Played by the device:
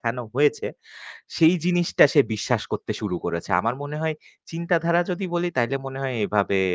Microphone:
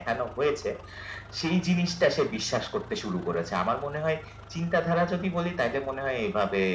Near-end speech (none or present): none